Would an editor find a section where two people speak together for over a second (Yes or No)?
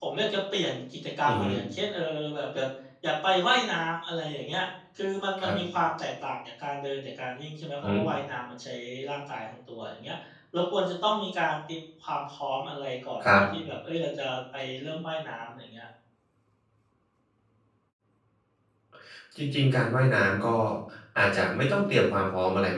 No